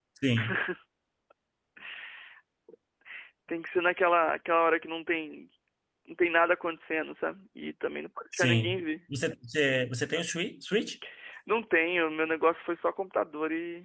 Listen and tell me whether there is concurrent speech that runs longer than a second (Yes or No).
No